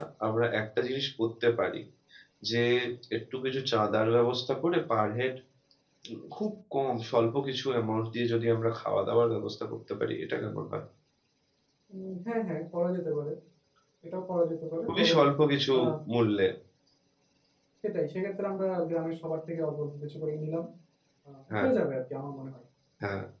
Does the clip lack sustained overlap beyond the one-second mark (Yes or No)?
Yes